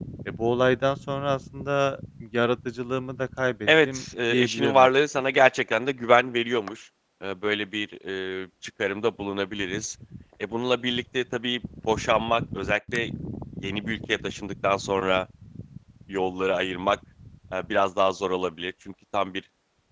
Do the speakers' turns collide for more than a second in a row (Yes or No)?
Yes